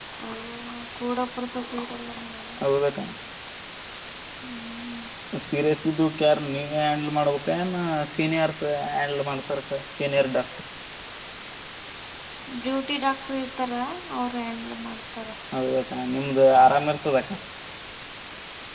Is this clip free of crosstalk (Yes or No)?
Yes